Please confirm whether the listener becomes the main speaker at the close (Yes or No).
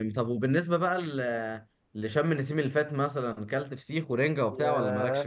Yes